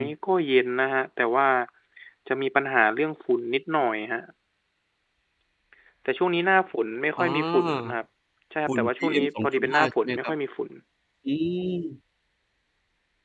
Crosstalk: present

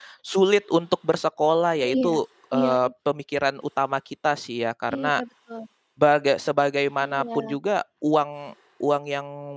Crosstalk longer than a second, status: none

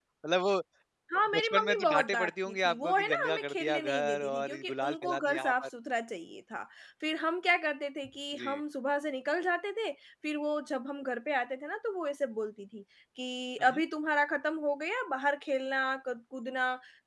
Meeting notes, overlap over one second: present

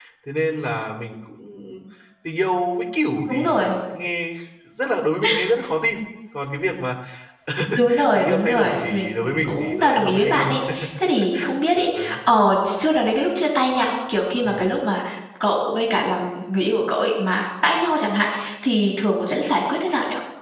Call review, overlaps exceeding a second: present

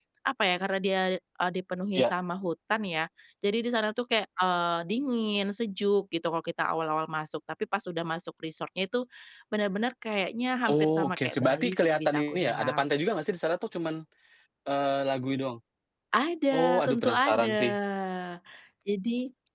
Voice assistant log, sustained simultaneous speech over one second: present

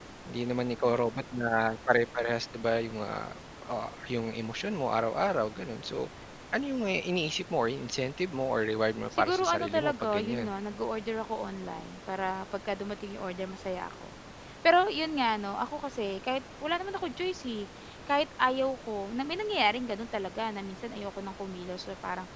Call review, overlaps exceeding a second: present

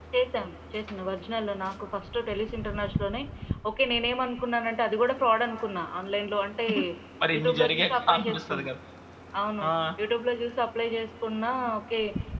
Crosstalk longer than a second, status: present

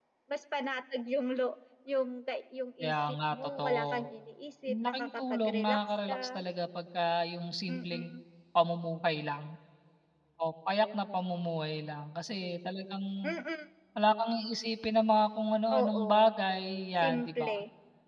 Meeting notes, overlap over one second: present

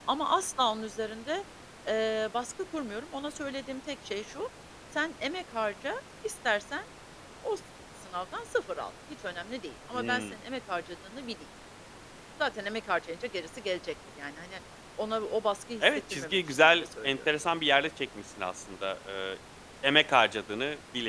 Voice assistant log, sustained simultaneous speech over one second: present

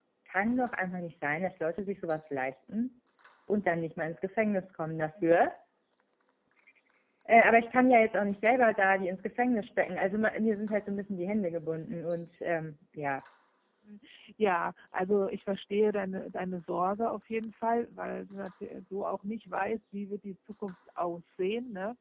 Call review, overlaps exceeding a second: none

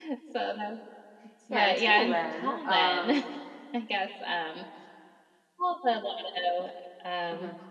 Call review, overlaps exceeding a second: present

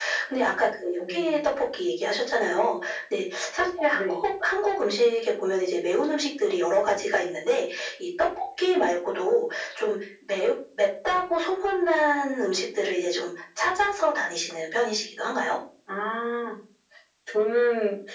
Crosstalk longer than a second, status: none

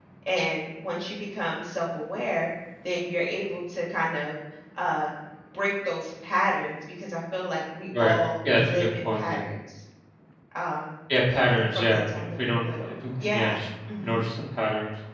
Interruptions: present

